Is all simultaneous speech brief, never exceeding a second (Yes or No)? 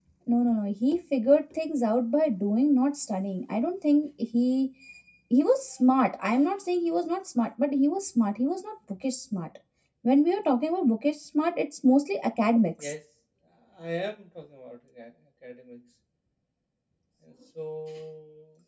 Yes